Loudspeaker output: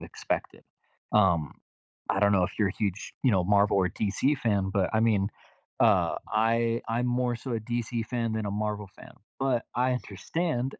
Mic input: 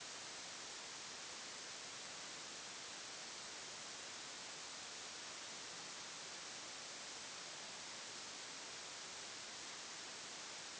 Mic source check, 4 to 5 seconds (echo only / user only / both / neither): neither